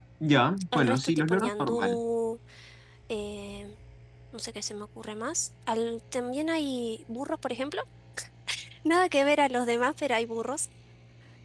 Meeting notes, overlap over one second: present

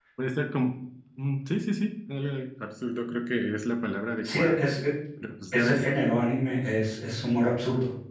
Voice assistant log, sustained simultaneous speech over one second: none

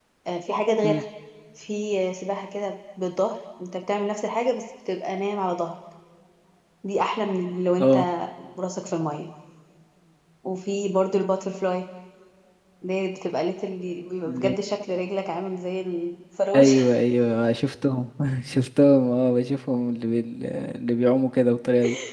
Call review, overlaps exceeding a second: none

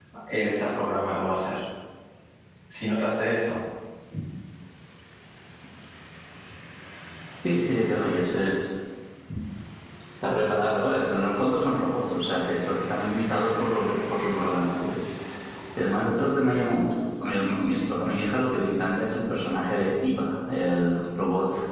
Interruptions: none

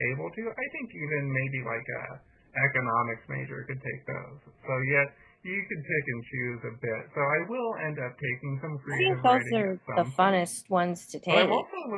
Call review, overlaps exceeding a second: present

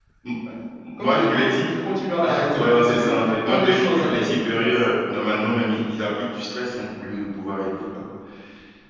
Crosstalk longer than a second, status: present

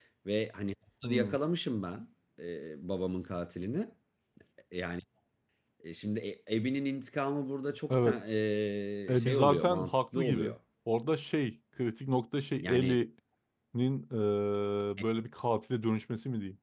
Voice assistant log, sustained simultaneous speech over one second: present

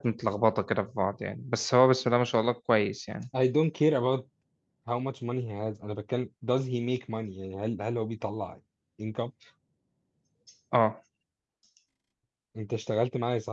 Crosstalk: none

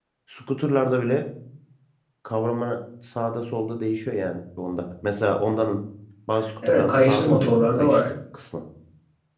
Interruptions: present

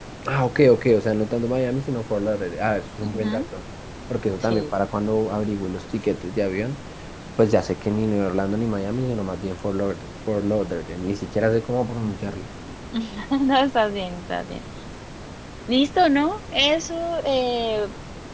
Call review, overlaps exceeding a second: none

